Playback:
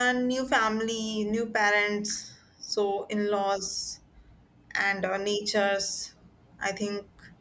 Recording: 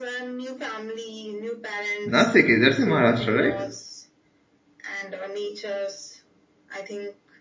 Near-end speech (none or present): present